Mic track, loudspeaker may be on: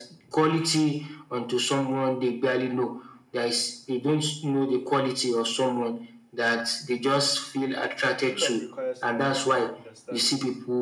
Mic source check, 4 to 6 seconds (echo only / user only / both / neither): echo only